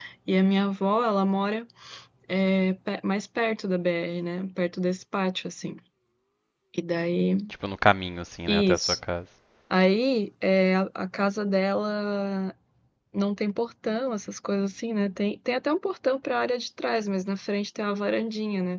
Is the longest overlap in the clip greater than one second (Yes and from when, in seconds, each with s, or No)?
No